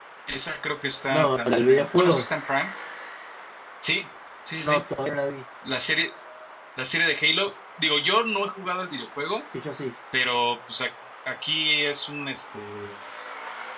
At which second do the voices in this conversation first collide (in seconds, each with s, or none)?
1.1 s